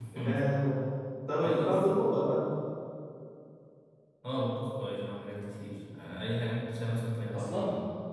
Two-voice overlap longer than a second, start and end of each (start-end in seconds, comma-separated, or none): none